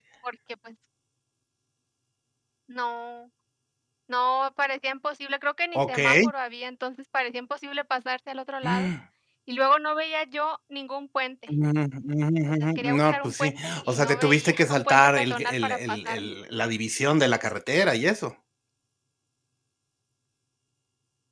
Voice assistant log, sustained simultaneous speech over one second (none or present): present